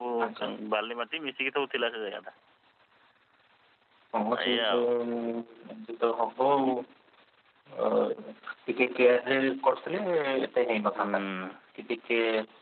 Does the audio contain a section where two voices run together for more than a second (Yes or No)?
No